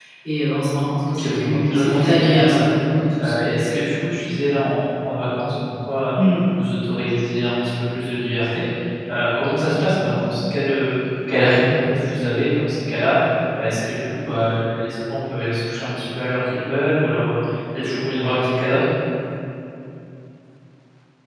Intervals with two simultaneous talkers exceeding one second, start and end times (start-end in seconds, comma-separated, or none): 1.0-2.6